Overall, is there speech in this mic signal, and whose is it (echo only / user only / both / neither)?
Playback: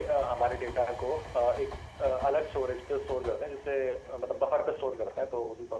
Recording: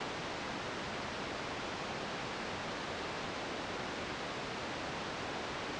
neither